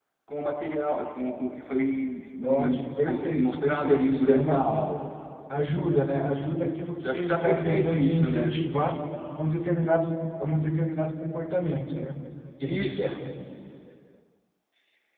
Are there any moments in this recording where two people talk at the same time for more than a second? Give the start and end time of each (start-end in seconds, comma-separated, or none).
2.4-4.7, 7.0-8.6